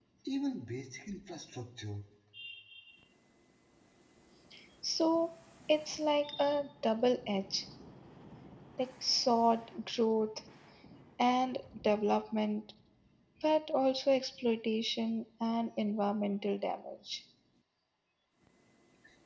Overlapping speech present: No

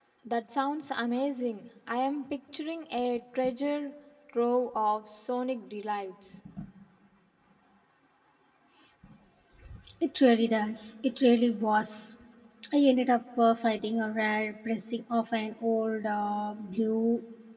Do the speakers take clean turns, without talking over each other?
Yes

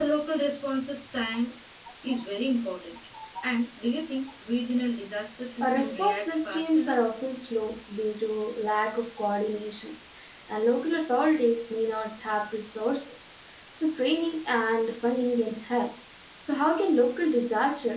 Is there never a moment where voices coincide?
No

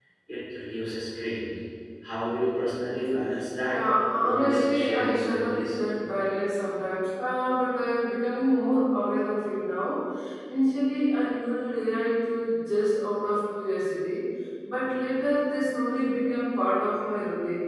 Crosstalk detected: Yes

